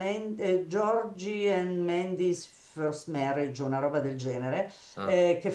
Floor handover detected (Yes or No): No